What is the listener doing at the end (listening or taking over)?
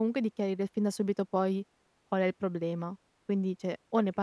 listening